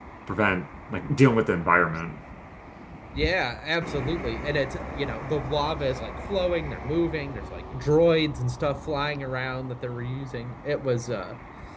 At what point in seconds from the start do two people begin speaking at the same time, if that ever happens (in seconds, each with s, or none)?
none